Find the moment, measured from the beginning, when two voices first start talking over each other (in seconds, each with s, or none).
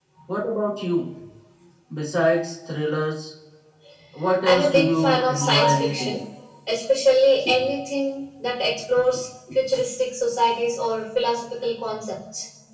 4.4 s